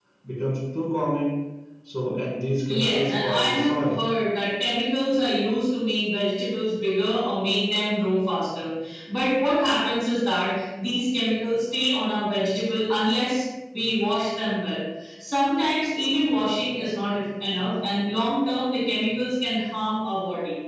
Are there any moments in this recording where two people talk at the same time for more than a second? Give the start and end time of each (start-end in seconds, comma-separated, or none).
2.7-4.0